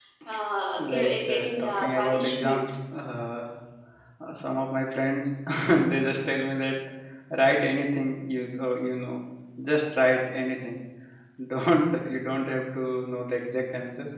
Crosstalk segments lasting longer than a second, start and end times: 0.8-2.6

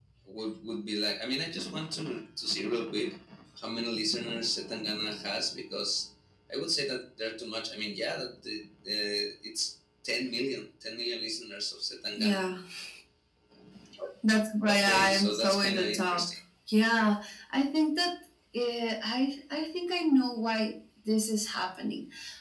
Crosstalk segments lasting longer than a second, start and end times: 14.7-16.3

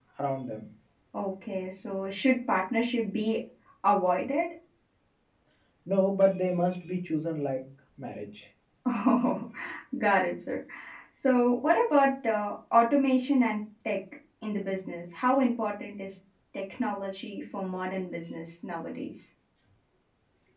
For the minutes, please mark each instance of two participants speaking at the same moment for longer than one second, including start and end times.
none

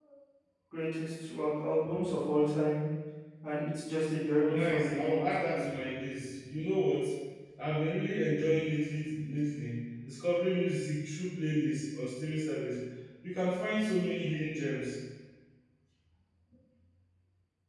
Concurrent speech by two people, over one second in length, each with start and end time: 4.5-5.7

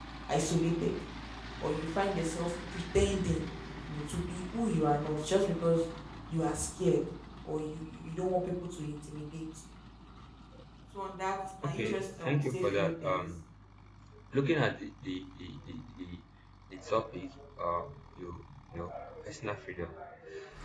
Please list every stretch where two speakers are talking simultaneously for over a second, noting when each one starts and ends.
11.6-13.3

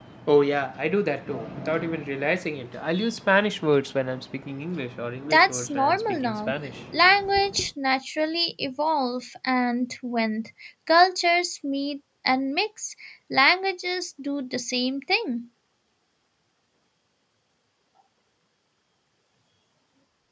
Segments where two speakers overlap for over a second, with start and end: 5.2-6.5

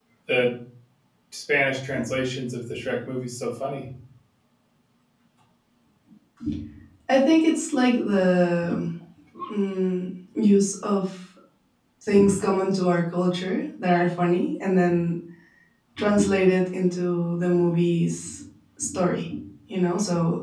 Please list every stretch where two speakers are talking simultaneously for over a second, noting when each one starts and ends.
none

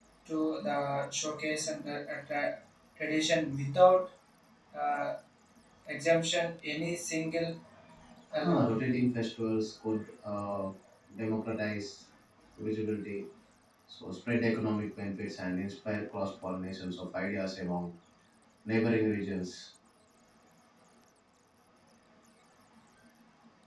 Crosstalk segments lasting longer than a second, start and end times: none

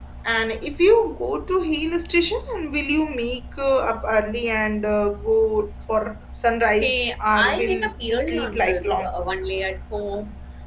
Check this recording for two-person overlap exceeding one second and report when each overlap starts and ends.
6.8-9.1

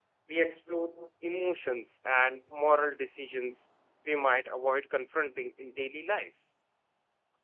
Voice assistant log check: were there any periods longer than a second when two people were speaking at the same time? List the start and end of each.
none

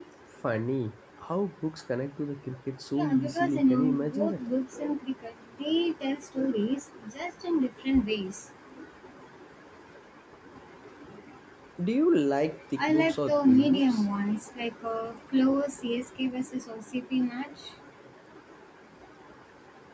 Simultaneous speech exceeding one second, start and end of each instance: 2.9-4.4, 12.8-14.0

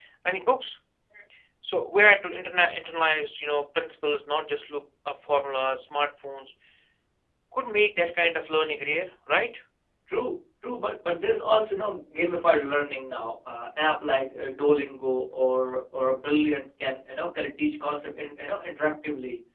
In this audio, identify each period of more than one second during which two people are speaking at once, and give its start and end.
none

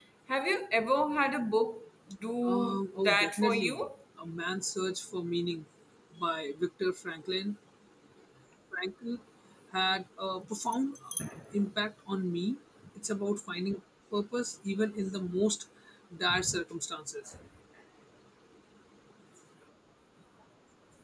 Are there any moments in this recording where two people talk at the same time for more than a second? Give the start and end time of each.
2.4-3.8

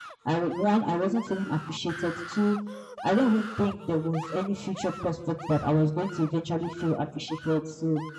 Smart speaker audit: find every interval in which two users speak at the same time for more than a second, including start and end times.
none

